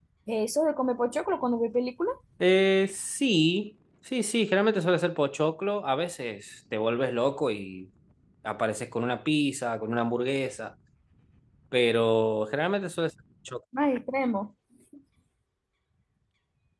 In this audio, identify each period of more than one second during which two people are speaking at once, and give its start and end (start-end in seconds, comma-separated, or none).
none